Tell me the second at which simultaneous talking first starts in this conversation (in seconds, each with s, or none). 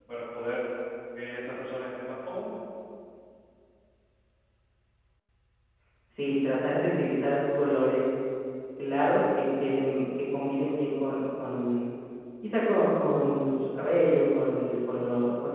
none